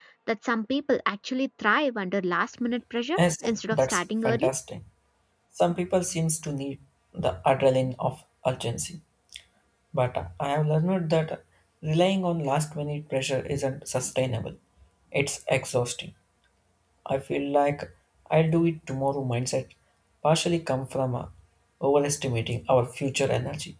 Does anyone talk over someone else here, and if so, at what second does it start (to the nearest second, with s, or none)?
3 s